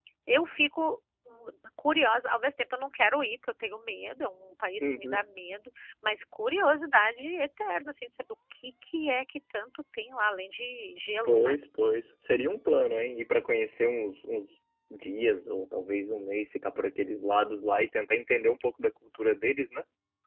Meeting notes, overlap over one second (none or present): none